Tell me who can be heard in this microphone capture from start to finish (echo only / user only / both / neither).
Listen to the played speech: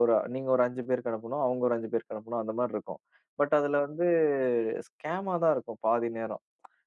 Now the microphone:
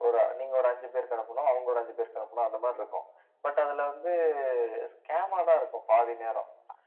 echo only